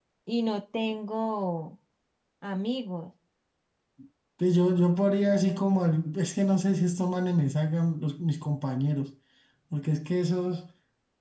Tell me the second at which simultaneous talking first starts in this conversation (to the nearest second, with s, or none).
none